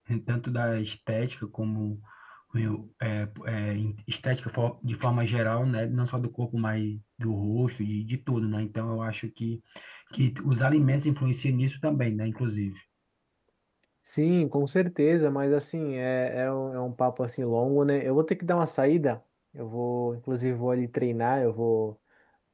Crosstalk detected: No

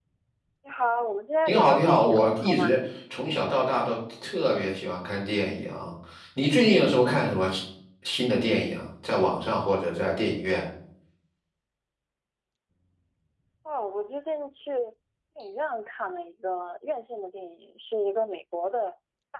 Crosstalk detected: Yes, from 1.5 s

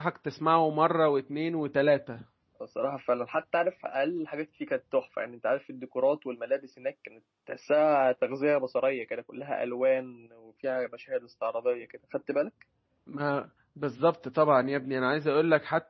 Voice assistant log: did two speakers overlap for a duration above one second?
No

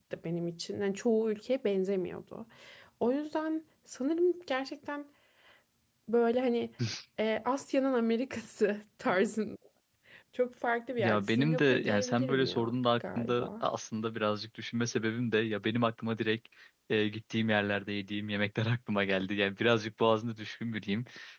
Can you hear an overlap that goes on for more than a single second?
Yes, from 11.0 s

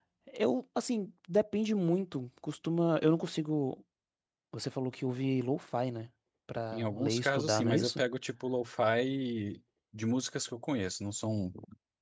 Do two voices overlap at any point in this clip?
Yes, from 6.7 s

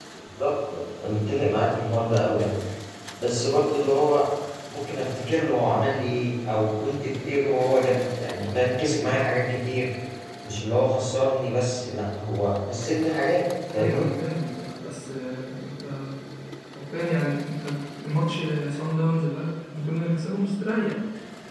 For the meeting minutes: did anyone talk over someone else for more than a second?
No

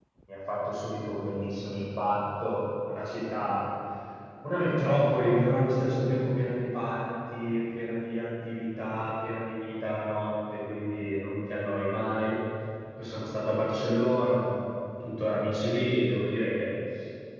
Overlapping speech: No

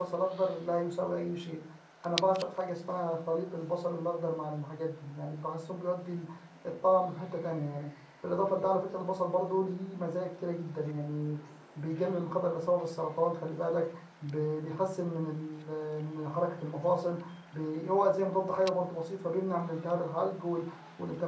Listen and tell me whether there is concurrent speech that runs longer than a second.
No

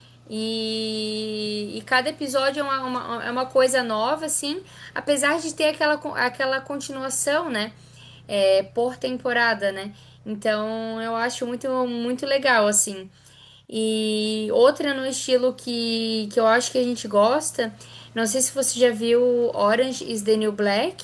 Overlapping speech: No

